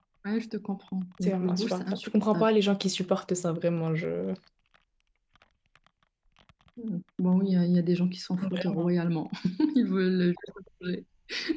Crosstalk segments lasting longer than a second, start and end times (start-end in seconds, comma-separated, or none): 1.2-2.5